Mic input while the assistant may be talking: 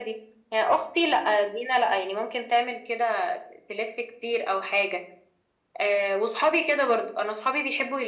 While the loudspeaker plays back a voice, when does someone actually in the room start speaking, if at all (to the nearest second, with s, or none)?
none